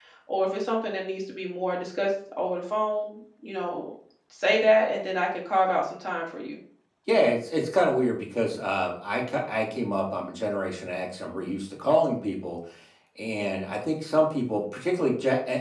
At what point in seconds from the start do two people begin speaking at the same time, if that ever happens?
none

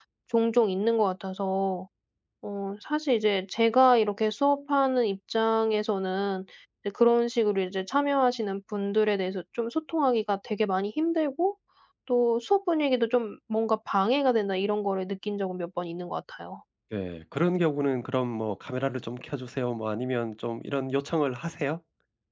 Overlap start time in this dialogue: none

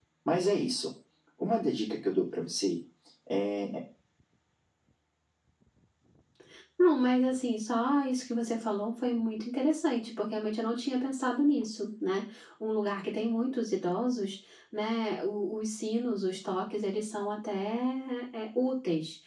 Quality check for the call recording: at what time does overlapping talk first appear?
none

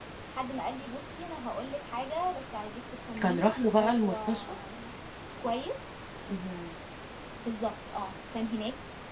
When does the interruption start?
3.2 s

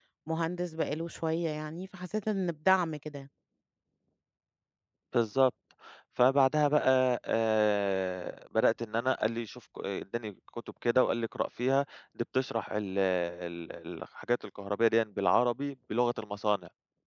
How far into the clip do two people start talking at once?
none

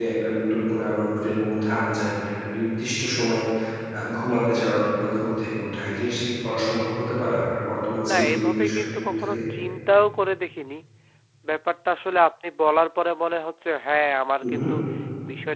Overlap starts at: 8.1 s

